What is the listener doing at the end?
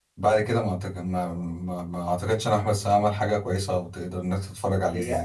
taking over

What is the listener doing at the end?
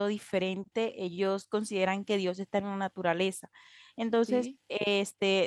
listening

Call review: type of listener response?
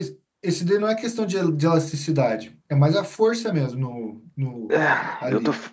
taking over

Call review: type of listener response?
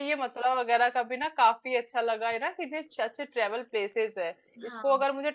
listening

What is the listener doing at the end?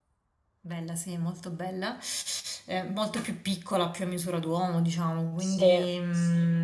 listening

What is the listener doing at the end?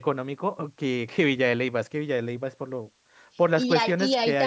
taking over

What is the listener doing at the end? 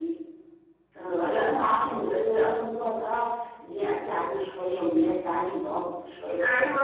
taking over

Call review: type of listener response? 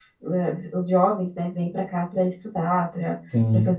listening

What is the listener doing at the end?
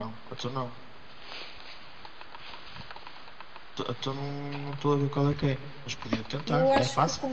taking over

